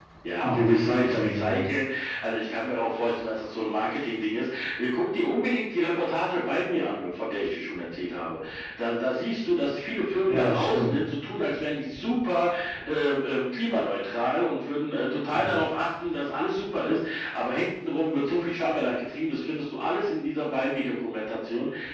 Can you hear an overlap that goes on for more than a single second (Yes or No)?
Yes